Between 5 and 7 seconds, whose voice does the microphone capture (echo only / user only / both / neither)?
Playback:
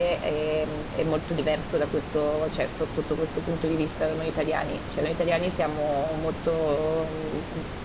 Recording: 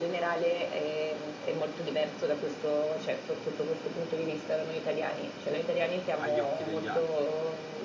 both